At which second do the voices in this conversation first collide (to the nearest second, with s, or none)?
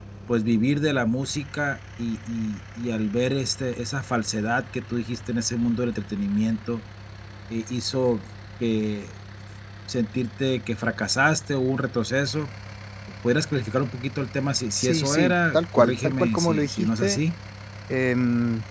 15 s